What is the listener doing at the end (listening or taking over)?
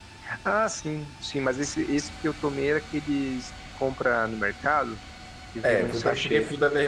taking over